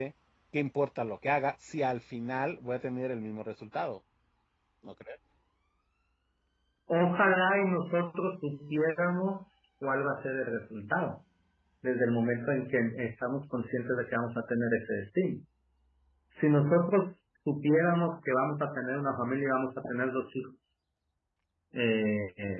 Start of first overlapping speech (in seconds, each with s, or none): none